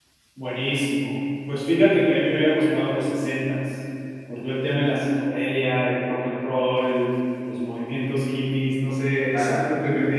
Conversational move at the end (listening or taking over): listening